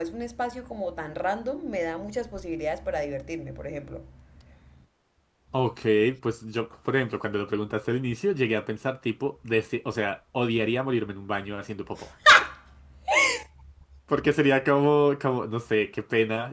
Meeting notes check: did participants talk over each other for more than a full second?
No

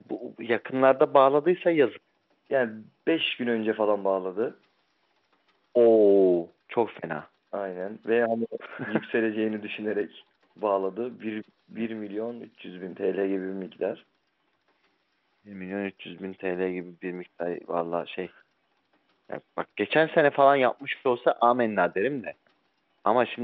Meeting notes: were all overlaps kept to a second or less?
Yes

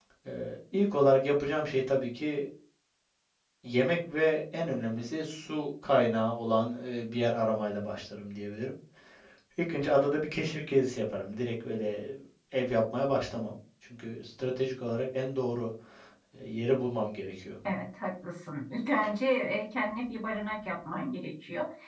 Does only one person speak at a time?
Yes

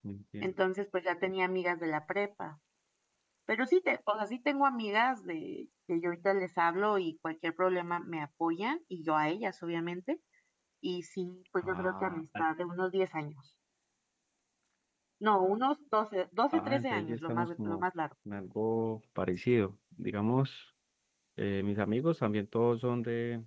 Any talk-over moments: Yes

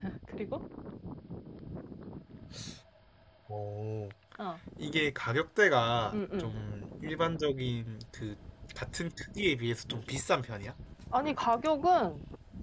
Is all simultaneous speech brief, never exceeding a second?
Yes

